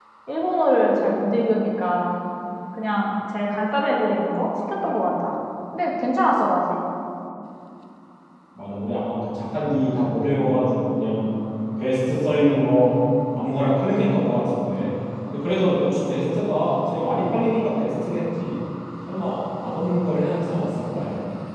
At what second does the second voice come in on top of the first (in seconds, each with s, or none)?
none